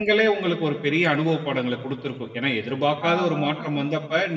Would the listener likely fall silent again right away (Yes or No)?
Yes